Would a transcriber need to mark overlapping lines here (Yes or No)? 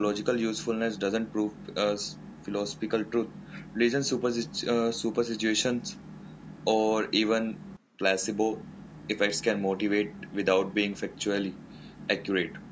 No